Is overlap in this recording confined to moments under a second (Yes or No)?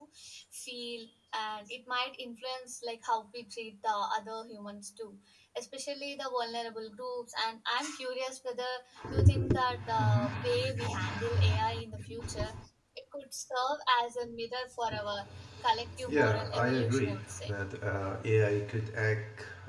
No